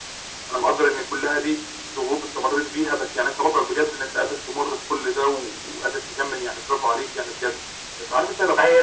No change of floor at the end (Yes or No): Yes